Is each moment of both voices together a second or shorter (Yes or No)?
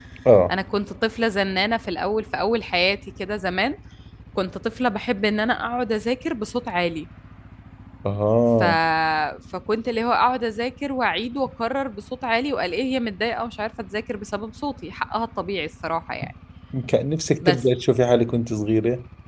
Yes